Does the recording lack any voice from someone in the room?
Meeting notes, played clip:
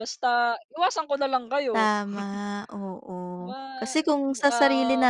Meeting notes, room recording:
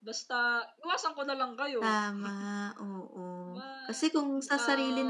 Yes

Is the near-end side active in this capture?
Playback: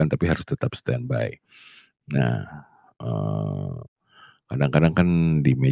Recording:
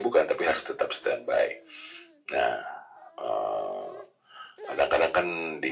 No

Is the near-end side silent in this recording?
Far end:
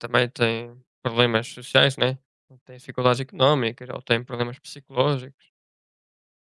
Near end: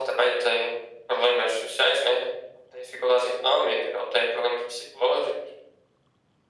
Yes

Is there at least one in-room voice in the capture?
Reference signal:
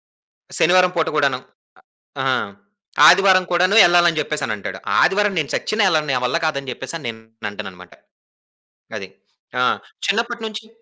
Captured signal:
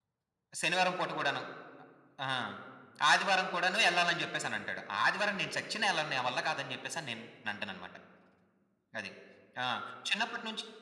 No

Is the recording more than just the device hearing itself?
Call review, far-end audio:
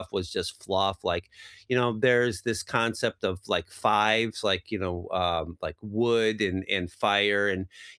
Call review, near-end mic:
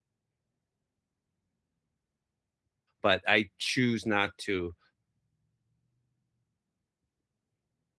Yes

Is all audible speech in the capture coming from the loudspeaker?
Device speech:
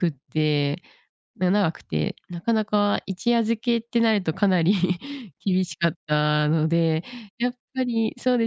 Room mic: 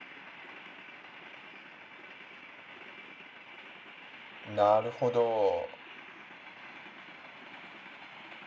No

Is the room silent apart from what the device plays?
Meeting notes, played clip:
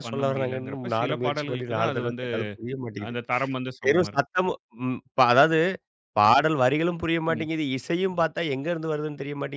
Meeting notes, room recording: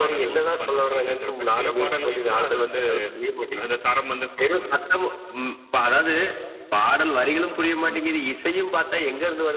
Yes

